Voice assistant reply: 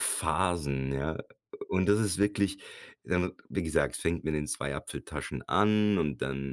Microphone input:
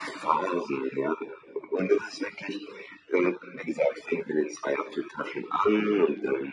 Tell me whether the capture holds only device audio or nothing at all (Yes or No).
Yes